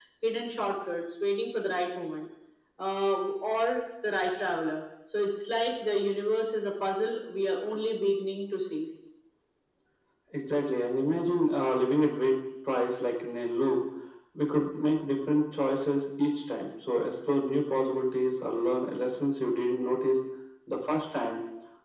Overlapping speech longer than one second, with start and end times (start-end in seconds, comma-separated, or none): none